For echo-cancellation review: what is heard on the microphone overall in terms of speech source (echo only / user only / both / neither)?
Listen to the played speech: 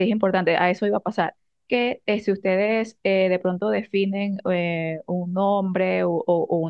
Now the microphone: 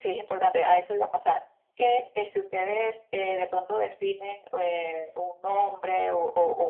echo only